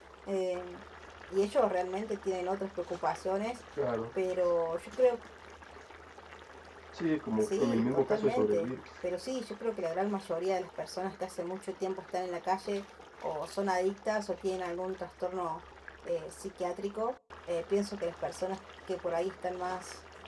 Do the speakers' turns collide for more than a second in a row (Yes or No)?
Yes